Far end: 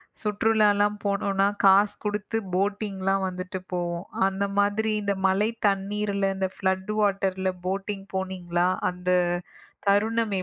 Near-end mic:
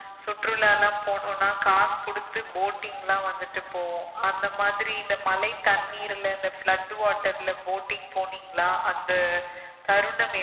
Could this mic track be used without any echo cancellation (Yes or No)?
No